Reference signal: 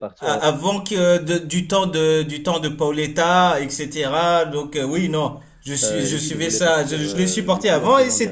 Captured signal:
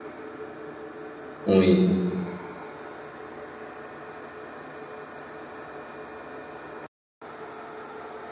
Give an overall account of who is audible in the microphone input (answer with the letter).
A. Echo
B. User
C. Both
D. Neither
B